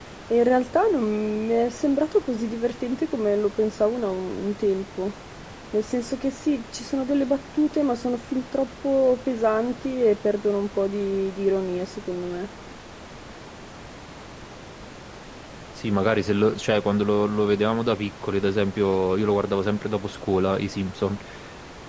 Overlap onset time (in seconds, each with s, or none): none